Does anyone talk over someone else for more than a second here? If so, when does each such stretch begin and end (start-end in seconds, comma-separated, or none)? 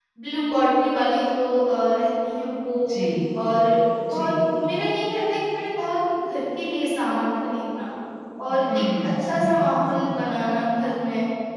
8.7-10.1